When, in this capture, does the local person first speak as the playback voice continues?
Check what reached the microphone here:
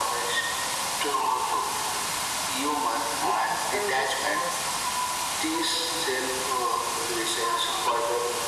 3.2 s

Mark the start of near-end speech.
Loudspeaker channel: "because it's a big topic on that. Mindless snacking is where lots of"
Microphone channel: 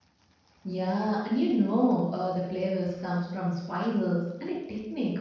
0.6 s

